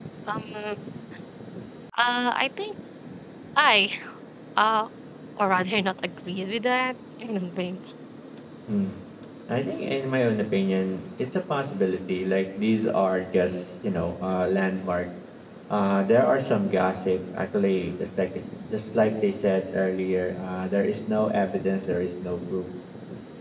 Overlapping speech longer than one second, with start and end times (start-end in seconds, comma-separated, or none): none